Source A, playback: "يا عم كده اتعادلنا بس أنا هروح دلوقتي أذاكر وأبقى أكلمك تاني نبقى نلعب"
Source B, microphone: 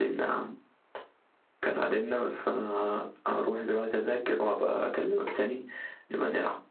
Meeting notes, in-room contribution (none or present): none